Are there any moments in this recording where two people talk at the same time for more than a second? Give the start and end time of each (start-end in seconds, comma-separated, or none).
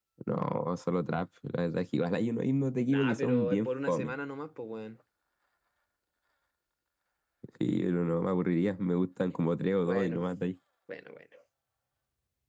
2.9-4.2